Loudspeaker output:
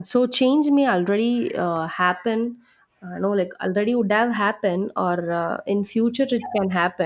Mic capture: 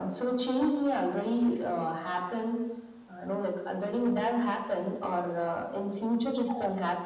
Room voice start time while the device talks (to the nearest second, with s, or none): none